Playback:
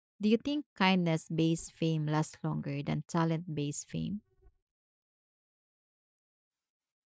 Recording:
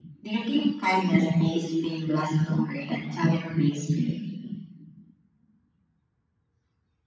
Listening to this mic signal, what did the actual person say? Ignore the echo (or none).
none